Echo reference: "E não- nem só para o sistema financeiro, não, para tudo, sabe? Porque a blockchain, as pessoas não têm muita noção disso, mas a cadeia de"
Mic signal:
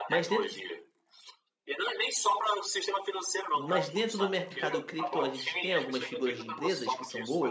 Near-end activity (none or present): present